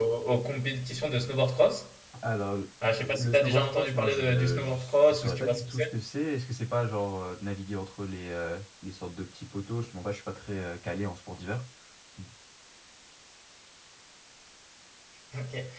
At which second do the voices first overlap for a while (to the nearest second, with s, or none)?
3 s